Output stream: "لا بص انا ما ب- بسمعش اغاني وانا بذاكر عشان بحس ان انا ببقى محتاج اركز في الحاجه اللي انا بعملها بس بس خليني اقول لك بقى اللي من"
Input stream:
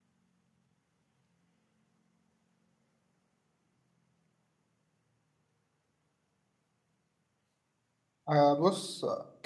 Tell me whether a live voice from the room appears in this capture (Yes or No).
Yes